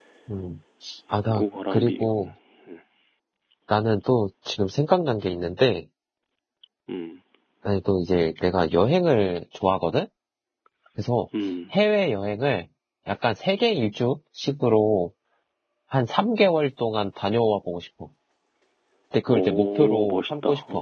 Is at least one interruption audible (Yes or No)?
Yes